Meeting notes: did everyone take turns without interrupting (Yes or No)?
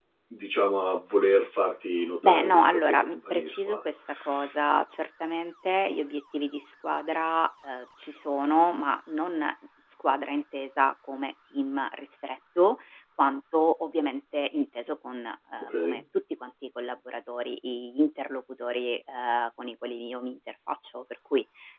No